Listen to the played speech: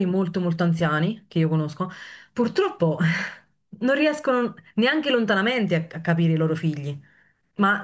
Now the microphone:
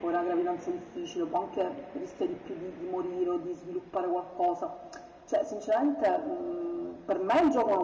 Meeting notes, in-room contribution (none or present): present